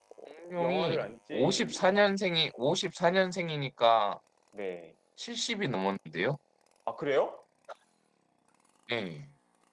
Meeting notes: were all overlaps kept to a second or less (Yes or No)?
No